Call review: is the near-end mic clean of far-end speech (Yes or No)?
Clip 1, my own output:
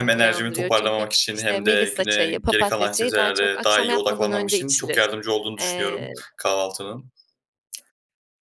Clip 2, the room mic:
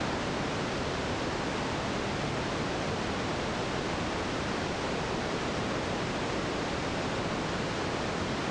Yes